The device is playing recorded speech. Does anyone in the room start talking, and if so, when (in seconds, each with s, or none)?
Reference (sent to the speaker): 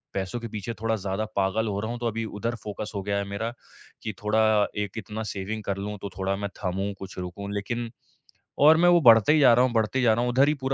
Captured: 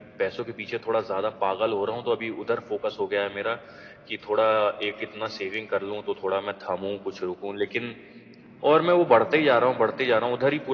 none